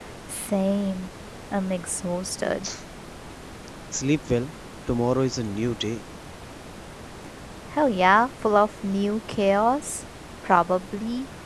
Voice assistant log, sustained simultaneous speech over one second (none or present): none